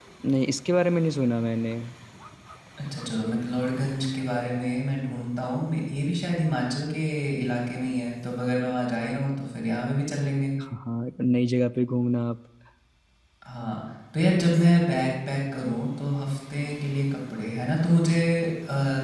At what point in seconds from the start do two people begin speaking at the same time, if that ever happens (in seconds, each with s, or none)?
none